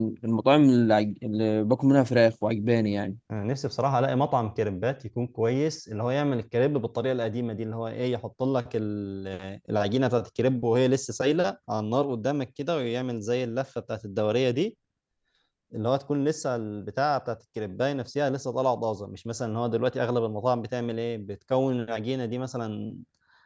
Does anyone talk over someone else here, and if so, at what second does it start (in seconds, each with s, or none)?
none